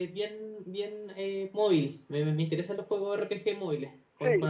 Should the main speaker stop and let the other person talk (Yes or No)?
Yes